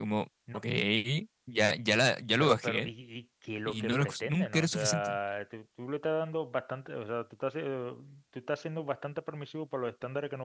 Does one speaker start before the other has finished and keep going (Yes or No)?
Yes